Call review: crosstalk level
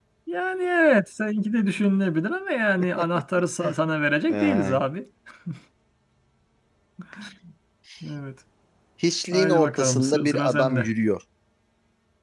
present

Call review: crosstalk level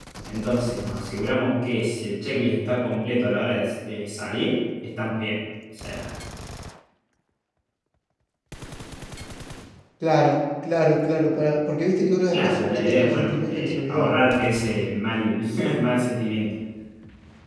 present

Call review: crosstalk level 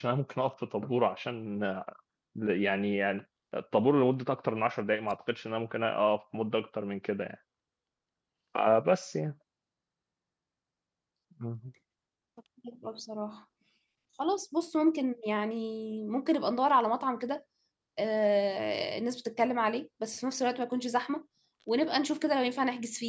none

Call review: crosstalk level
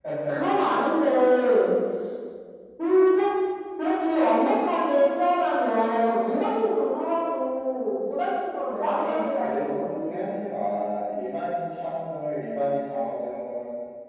present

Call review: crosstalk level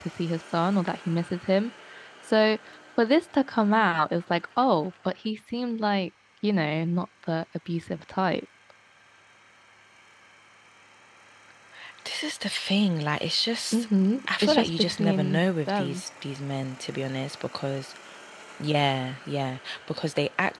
present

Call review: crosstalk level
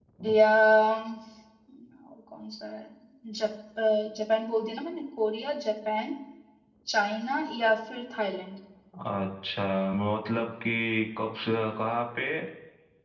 none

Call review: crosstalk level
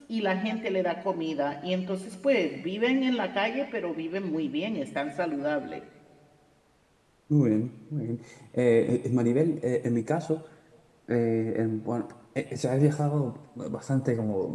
none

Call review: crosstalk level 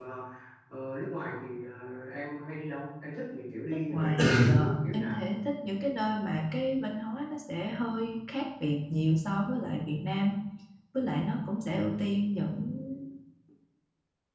present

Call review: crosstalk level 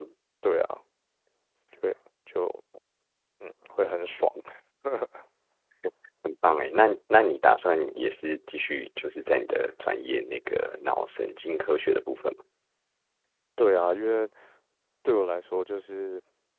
none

